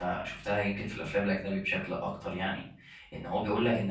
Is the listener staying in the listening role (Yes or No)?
Yes